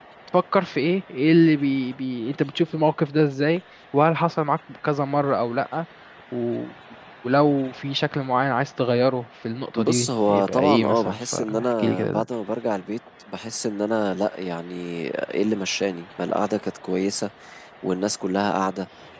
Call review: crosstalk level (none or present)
present